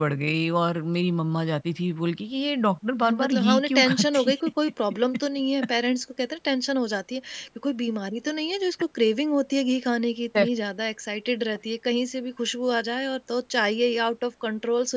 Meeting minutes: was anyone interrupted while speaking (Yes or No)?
Yes